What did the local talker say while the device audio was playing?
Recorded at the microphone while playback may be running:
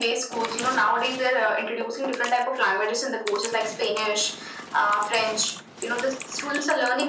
none

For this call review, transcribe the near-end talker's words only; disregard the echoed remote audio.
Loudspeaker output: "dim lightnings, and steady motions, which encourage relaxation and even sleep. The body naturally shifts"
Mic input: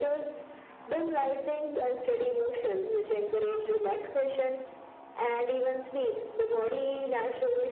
none

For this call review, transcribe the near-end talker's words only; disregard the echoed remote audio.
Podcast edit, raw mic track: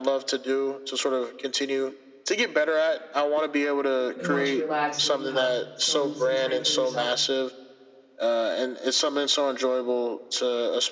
when you want to relax or you have some some time for yourself?

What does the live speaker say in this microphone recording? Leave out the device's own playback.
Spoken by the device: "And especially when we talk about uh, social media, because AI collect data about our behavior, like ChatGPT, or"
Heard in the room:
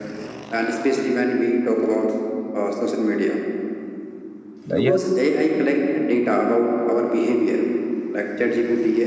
Uh, Yes.

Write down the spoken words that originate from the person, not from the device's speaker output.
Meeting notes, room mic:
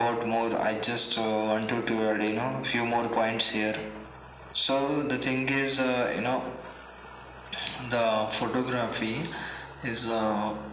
none

